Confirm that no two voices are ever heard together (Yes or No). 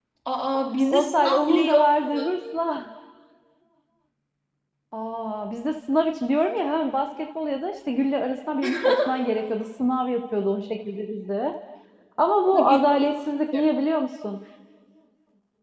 No